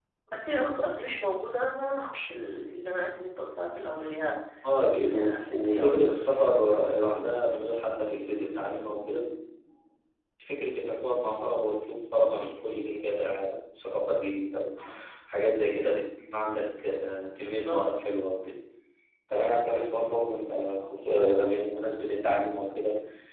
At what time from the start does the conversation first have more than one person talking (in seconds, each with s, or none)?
4.8 s